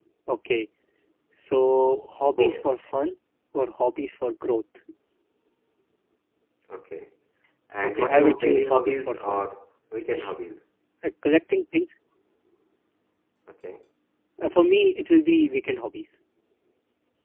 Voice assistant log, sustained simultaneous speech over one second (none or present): present